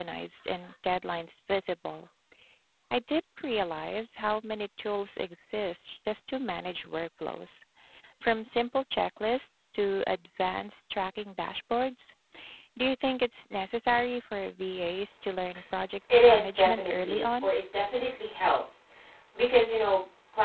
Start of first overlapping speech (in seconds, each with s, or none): 16.1 s